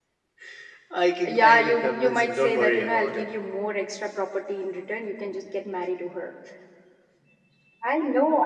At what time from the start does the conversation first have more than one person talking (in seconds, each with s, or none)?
1.2 s